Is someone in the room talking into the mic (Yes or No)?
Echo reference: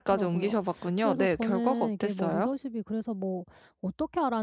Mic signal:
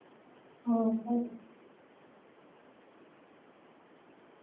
Yes